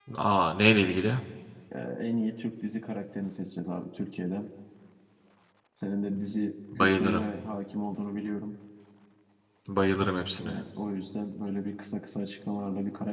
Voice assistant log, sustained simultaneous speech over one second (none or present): none